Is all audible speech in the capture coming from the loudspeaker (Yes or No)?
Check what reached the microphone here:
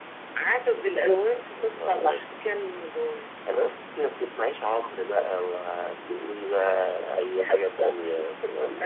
Yes